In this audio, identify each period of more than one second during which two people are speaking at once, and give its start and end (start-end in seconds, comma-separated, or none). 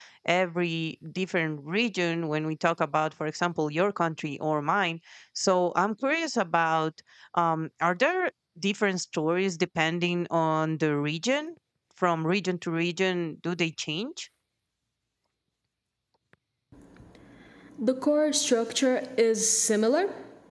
none